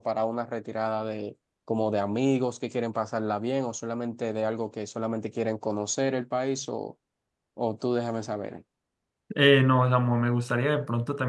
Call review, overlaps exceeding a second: none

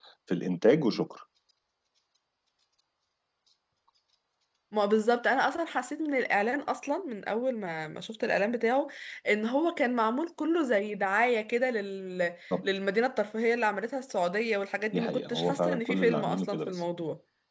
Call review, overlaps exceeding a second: present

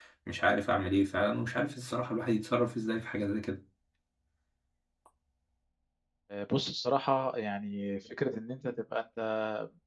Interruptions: none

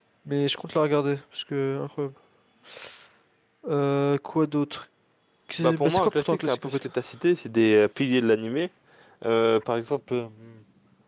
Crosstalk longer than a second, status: present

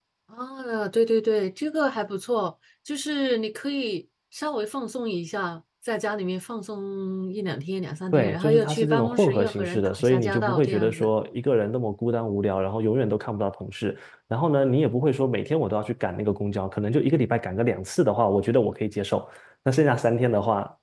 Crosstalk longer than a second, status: present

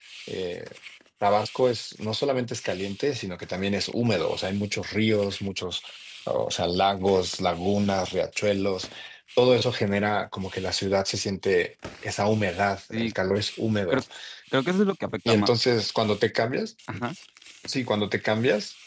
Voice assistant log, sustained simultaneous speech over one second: none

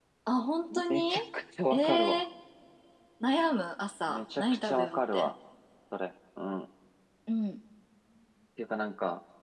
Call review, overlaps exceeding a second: present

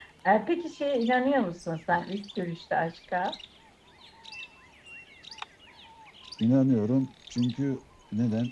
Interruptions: none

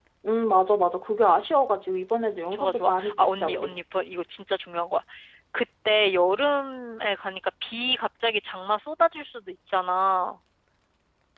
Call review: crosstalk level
present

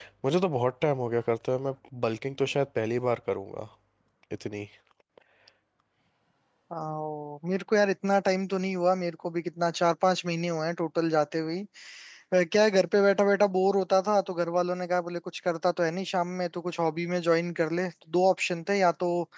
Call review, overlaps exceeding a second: none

